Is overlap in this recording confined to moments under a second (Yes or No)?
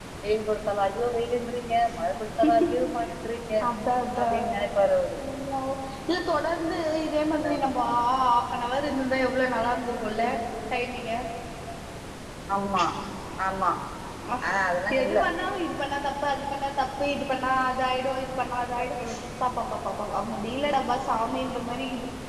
Yes